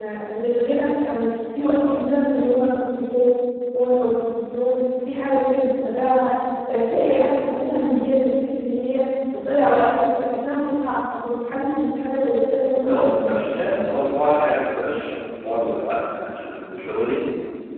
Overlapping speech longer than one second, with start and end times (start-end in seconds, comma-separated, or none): none